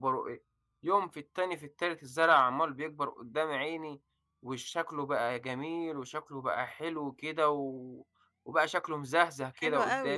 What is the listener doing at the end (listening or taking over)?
taking over